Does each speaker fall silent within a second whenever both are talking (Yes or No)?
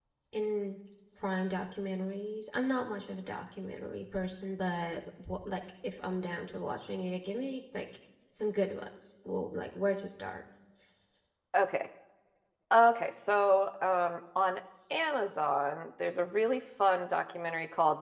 Yes